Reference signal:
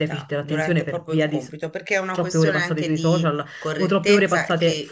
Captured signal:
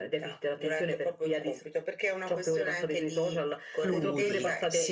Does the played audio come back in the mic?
Yes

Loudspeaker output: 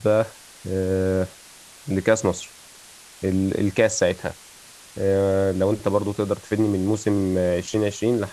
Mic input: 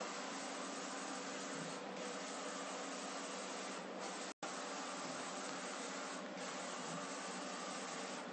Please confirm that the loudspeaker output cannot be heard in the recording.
Yes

